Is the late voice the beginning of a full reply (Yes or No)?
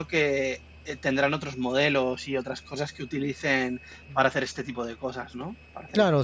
Yes